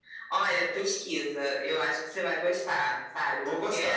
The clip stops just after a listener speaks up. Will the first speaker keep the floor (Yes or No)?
Yes